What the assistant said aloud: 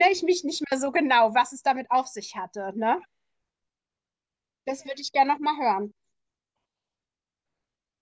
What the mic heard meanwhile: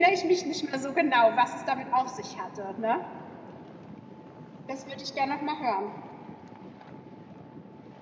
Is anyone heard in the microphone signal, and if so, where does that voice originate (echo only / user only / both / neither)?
echo only